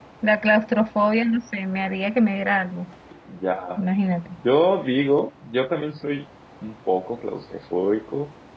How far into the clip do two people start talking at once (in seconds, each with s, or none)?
none